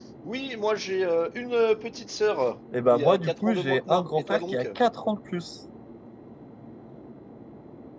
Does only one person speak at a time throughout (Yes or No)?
No